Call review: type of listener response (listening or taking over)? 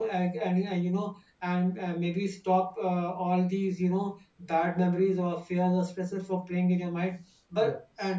listening